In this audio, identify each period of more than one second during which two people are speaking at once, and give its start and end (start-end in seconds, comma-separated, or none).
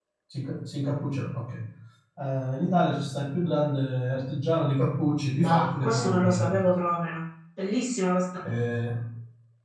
5.3-6.7